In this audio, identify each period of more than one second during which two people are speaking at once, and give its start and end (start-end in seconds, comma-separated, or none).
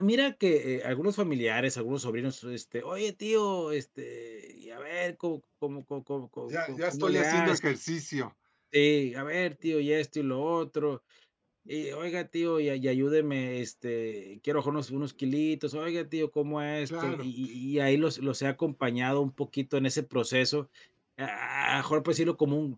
6.4-7.7